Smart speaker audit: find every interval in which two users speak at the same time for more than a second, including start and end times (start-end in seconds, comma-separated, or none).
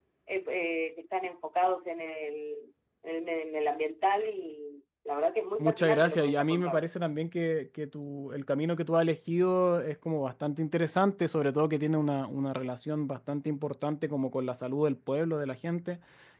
5.6-6.8